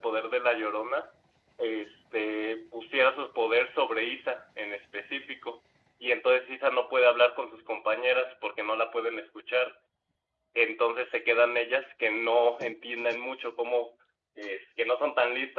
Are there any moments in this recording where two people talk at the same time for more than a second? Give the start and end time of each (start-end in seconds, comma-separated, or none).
none